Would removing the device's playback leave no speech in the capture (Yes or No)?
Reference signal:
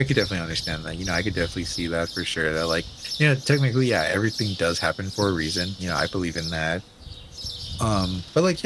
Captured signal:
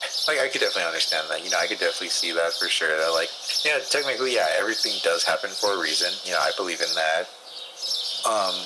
Yes